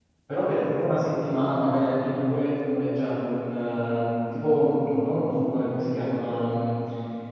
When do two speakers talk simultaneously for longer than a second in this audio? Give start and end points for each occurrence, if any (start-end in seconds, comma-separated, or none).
none